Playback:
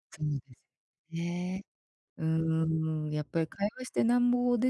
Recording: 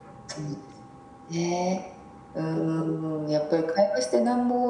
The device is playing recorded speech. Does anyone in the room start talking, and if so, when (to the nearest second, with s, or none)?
none